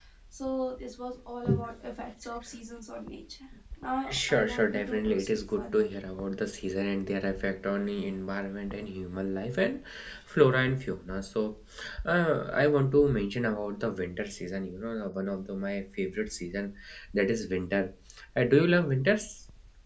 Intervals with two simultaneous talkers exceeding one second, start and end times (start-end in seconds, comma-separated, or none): 4.1-5.9